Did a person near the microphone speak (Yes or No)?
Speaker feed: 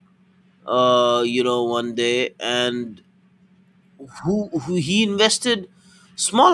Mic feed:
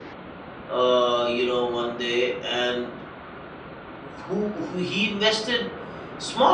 No